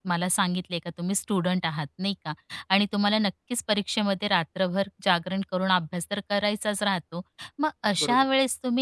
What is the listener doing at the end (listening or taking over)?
listening